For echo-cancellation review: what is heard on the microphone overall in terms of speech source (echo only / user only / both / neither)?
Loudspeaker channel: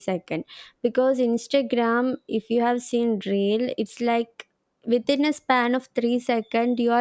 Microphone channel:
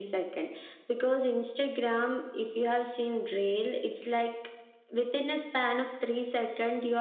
echo only